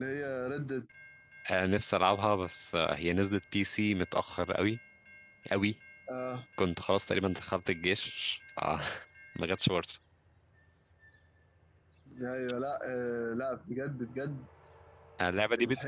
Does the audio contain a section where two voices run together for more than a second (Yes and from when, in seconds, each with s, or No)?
No